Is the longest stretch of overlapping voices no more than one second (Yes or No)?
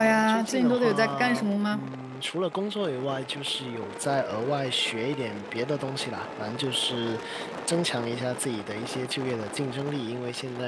No